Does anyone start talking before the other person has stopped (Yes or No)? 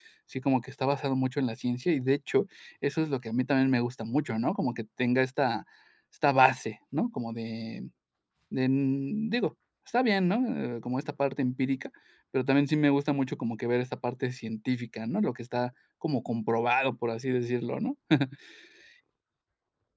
No